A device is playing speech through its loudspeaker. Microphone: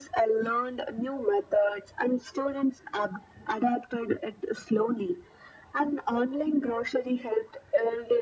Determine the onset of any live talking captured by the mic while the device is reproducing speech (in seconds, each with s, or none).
none